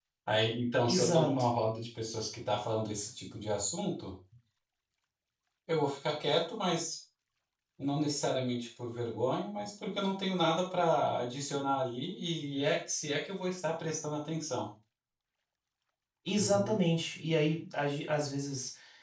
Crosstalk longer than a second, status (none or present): none